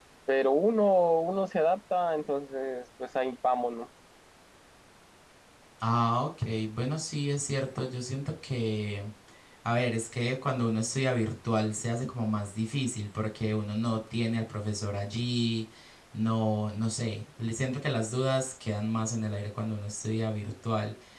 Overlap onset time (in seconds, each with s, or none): none